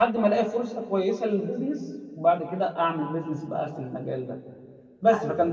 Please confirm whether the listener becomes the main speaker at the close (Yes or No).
No